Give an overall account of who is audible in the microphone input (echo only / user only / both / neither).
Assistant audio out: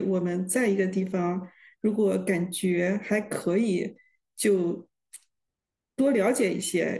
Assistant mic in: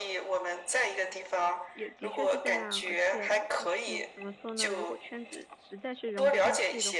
both